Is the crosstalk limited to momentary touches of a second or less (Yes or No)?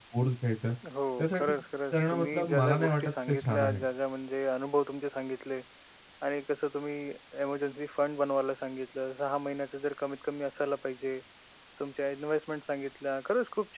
No